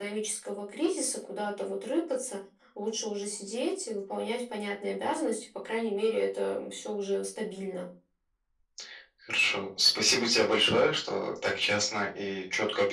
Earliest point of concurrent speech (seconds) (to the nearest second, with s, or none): none